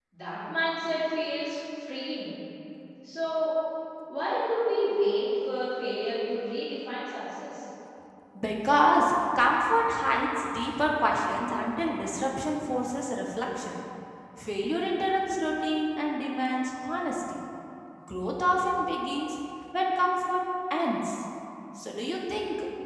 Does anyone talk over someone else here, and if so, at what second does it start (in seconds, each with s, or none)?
none